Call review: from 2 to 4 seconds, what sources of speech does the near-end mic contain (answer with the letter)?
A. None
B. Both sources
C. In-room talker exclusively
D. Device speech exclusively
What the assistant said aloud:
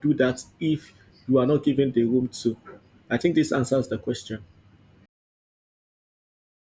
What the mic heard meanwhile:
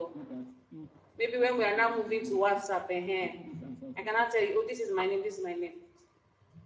B